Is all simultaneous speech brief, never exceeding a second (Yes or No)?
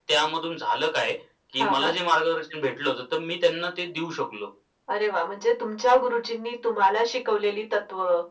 Yes